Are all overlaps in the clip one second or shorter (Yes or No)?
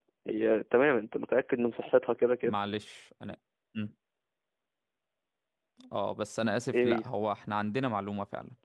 Yes